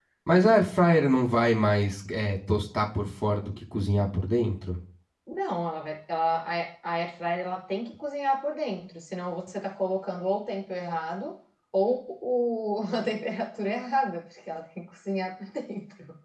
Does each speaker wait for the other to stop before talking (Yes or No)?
Yes